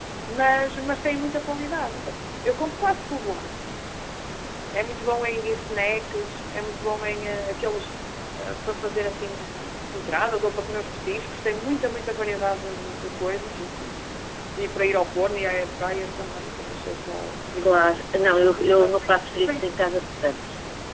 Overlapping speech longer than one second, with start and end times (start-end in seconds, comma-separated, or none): none